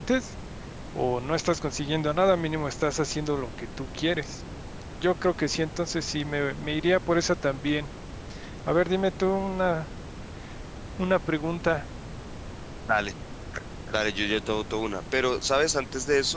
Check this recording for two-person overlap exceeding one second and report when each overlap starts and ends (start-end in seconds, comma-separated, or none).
none